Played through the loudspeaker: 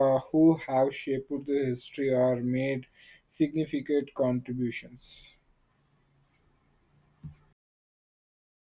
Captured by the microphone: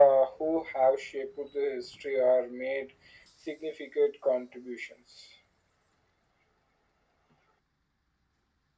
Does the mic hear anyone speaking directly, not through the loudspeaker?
No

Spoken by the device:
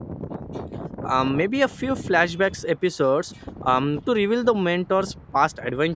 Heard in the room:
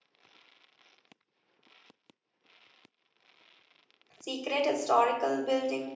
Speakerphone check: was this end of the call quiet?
No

